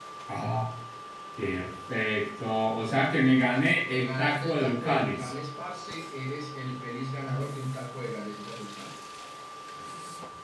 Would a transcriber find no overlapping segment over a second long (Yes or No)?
No